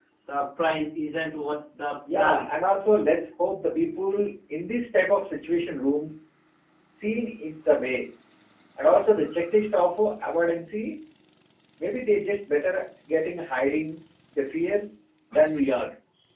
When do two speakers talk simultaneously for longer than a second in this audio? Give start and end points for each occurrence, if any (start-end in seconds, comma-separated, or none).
none